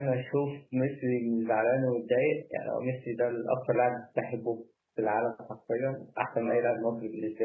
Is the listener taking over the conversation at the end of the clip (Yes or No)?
No